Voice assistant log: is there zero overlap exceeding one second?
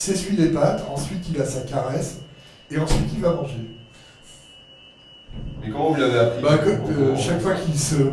No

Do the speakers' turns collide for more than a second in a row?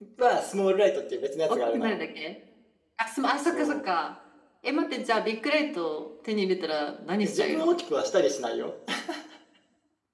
No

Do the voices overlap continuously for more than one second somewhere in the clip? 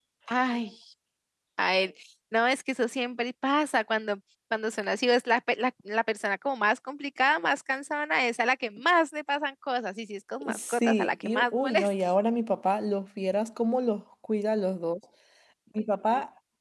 Yes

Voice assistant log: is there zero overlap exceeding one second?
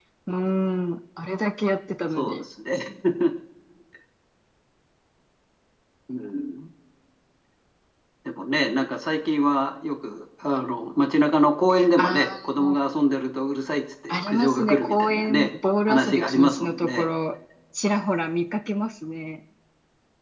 No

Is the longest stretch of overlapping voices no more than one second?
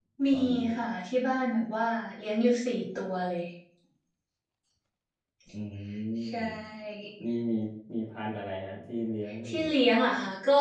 Yes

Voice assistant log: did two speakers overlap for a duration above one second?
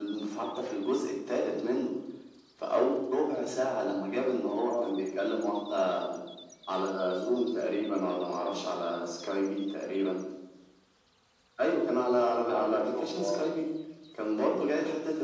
Yes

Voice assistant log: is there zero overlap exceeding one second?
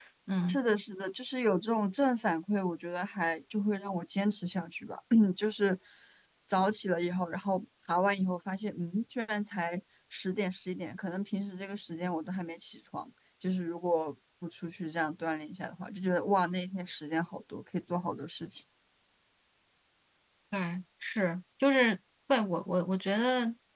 Yes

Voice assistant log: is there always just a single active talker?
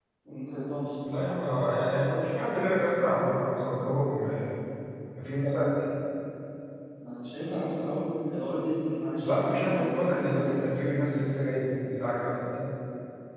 No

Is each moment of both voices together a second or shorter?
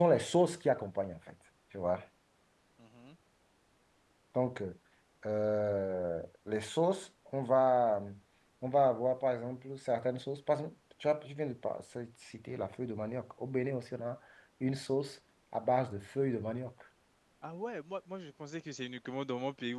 Yes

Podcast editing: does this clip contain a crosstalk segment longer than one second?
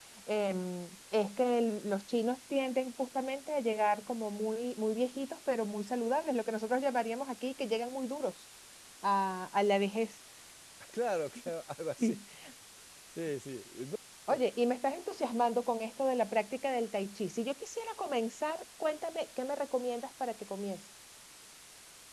No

